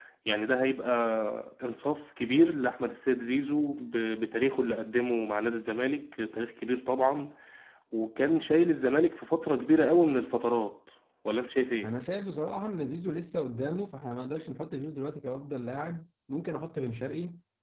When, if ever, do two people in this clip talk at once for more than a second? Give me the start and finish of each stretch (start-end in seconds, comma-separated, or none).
none